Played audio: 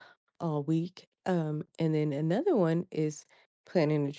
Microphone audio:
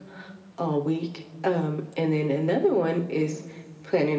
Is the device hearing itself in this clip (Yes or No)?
Yes